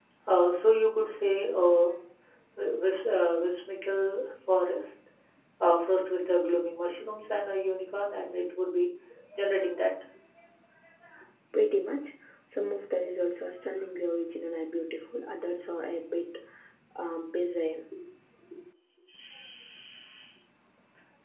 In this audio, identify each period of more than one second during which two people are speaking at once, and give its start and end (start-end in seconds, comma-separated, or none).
none